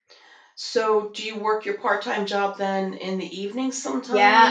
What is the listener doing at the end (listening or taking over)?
taking over